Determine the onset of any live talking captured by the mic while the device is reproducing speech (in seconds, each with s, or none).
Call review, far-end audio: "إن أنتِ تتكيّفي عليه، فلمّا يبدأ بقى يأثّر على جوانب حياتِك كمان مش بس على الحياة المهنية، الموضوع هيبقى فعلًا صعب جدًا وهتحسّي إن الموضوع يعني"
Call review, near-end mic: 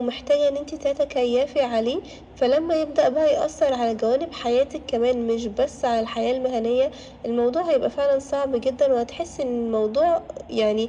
none